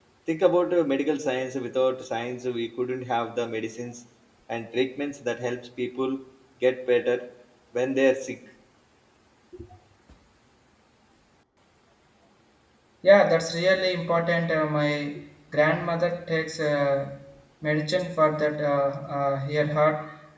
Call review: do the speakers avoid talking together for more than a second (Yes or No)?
Yes